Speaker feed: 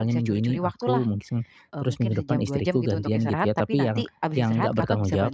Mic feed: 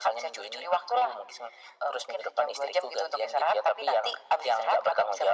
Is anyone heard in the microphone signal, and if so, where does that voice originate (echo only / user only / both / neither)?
echo only